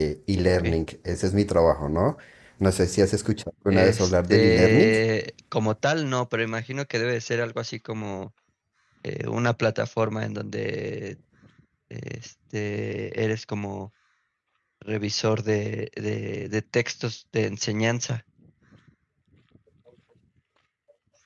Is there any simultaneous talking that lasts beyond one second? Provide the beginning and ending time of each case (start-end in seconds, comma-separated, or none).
3.7-4.9